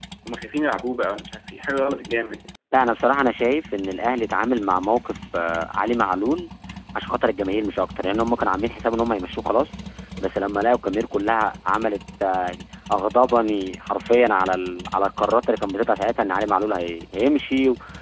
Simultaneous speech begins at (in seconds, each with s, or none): none